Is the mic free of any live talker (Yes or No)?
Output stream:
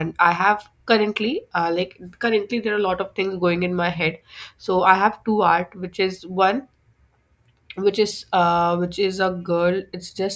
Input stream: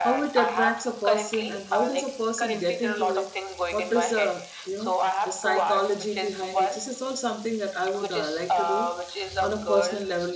No